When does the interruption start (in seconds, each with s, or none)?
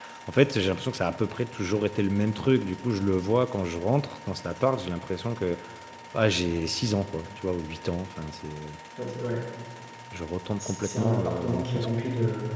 10.6 s